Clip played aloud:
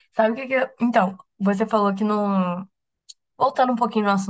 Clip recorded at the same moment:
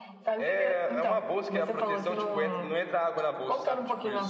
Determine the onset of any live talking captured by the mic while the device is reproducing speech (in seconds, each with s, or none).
0.3 s